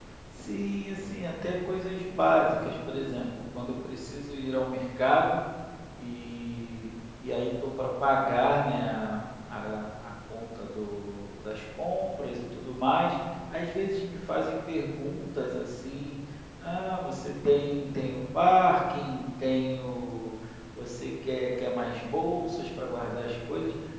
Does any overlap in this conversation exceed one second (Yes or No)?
No